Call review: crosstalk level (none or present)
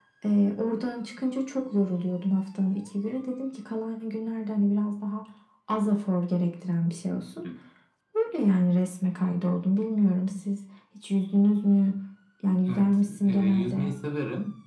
present